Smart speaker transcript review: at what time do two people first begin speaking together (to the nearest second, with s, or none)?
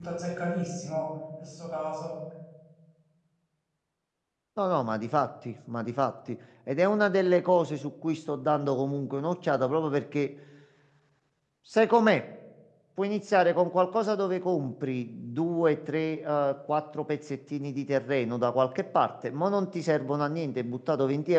none